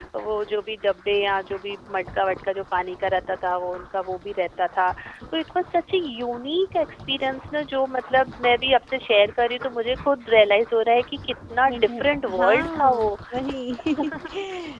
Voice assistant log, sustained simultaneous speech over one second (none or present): present